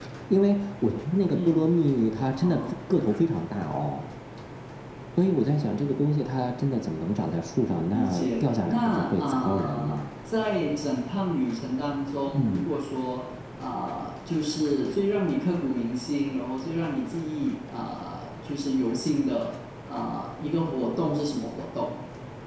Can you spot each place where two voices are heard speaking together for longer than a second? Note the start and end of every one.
7.9-10.0

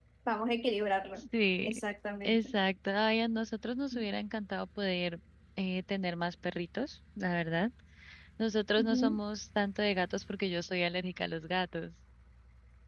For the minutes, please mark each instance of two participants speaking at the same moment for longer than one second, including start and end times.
none

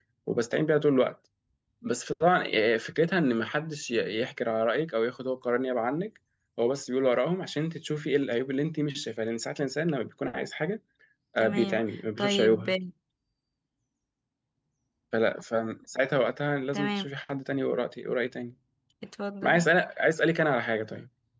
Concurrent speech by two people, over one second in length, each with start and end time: 11.4-12.7

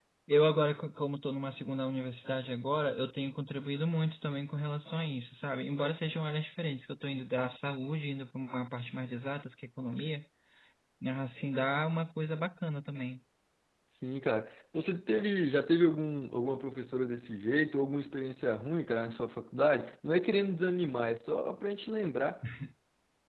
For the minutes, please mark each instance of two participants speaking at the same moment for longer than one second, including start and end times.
none

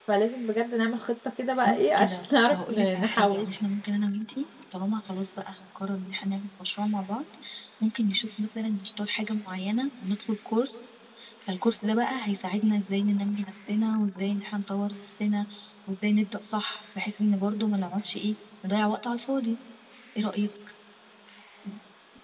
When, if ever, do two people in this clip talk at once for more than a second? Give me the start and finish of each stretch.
1.6-3.5

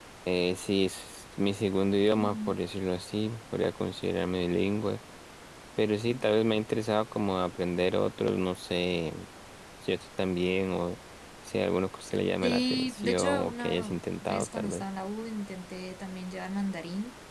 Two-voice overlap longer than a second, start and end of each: 12.4-14.8

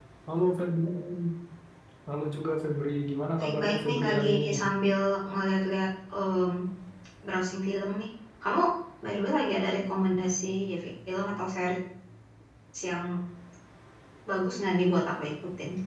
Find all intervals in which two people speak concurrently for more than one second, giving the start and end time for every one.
3.4-4.6

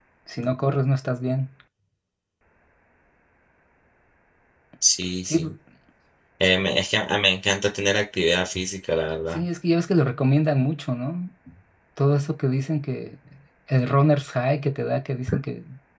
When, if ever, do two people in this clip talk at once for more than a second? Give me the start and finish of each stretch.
none

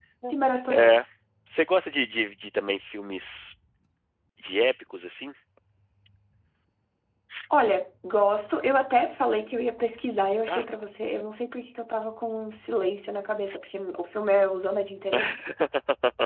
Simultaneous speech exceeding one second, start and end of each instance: none

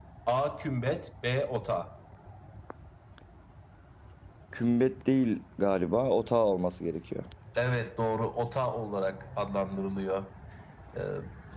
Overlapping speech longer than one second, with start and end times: none

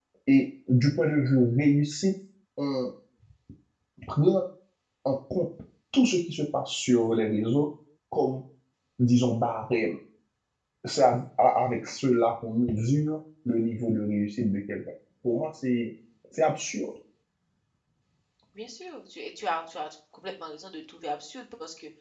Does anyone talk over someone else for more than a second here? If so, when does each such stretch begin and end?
none

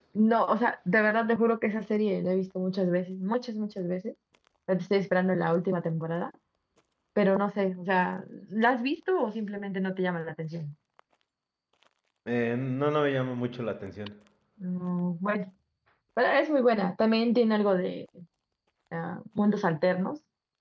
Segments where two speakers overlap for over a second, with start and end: none

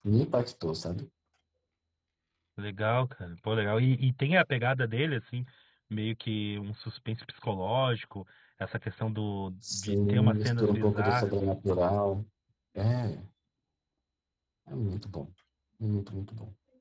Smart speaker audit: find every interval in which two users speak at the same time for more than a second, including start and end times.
9.7-11.5

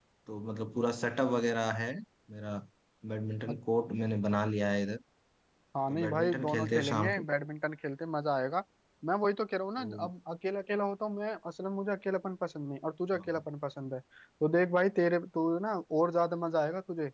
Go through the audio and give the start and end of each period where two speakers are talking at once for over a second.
5.9-7.2

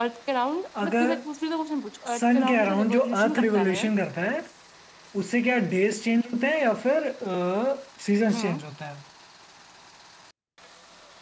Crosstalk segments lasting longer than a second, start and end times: 2.1-3.8

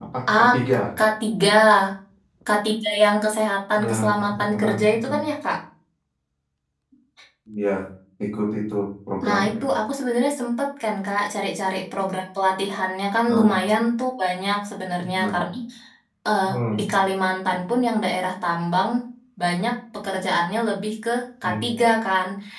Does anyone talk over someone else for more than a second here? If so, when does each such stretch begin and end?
3.8-5.1

